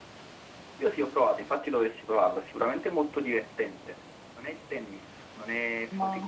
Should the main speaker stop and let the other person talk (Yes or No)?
No